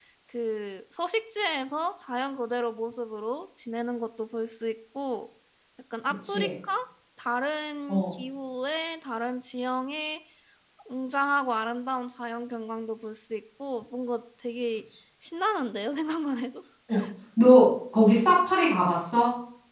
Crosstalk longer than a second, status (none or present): none